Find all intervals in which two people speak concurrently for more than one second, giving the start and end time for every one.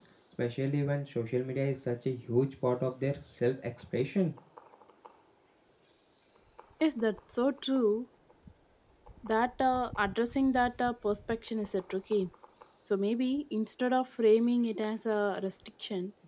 none

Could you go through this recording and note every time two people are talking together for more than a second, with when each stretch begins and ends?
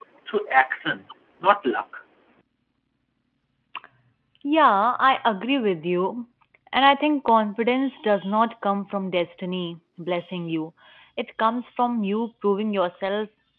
none

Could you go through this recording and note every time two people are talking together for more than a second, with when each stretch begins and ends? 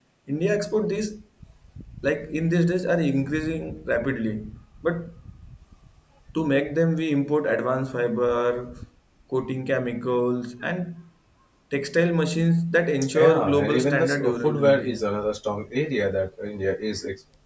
13.1-15.0

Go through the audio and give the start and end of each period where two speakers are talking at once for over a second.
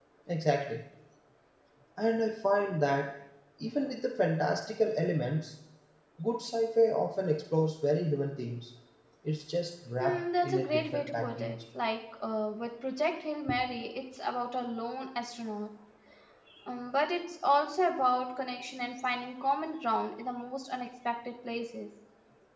10.0-11.6

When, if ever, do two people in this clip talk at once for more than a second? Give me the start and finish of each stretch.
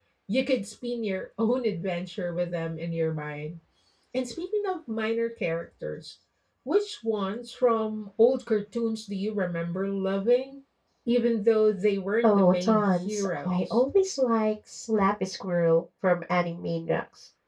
12.2-13.8

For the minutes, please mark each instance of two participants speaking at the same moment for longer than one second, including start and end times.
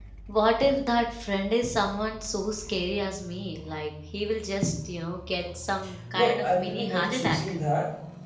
6.2-7.5

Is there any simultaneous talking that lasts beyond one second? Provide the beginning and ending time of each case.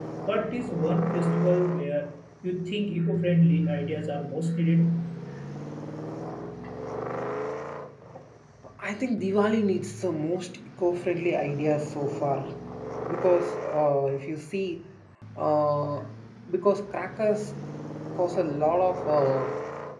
none

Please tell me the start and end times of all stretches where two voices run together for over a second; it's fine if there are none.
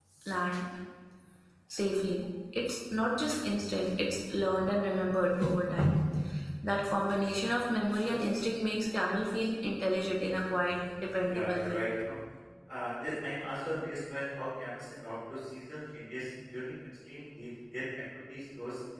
none

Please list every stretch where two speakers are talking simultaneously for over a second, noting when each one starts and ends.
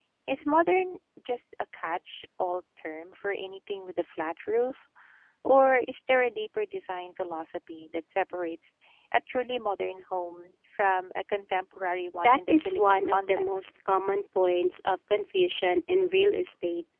12.2-13.7

